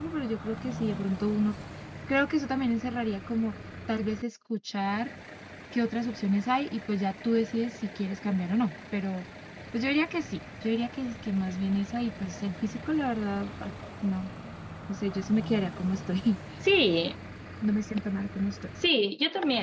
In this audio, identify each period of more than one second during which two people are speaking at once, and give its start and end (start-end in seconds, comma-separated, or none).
none